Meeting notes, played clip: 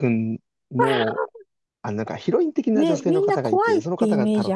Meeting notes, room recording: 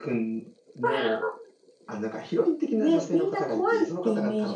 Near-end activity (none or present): none